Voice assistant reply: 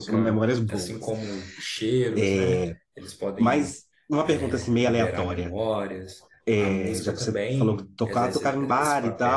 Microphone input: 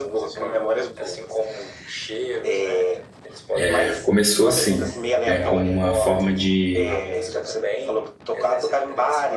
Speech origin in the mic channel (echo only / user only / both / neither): both